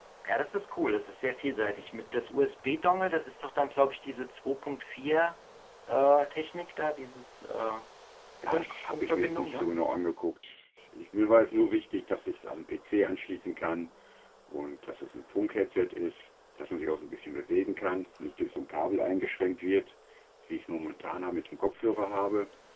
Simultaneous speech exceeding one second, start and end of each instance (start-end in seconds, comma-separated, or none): 8.5-9.7